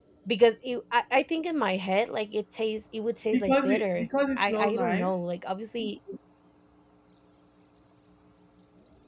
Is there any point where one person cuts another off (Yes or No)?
Yes